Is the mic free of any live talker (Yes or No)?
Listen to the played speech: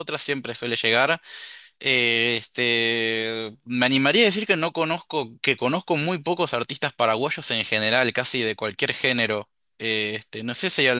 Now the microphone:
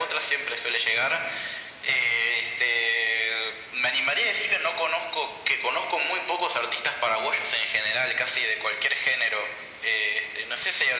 Yes